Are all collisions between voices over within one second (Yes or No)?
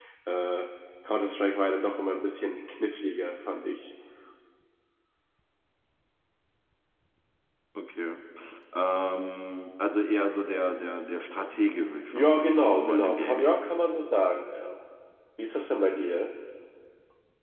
No